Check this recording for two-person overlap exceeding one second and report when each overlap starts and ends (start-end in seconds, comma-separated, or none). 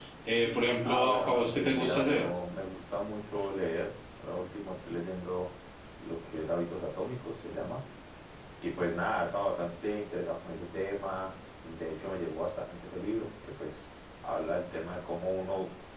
0.8-2.3